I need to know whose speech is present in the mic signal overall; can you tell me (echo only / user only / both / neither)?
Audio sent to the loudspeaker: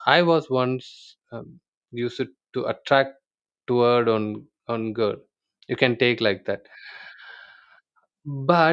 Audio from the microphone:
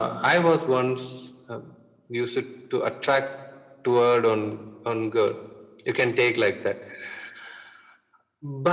echo only